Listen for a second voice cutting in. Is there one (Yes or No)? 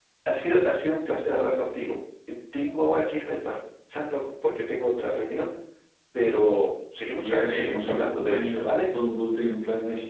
Yes